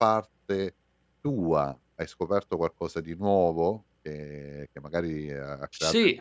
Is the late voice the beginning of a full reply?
Yes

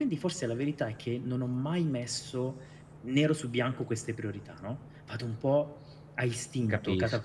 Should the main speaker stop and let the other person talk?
No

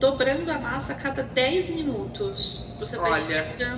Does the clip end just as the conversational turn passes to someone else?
No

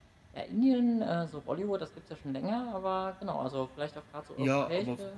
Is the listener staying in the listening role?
No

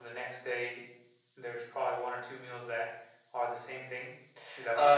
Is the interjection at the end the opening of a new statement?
Yes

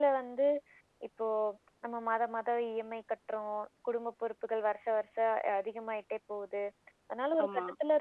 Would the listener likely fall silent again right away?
Yes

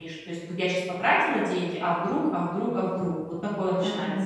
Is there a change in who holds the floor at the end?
Yes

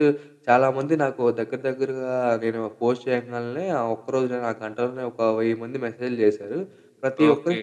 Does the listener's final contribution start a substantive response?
No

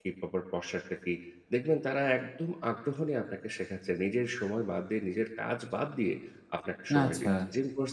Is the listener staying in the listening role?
Yes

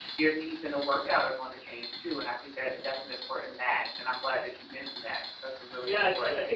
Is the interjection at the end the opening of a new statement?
Yes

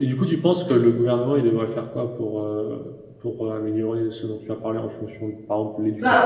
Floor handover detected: Yes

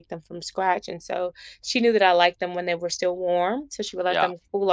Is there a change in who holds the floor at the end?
No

